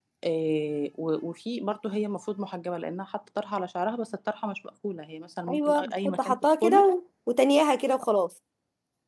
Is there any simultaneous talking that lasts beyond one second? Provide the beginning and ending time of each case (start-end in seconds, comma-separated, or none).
5.5-6.9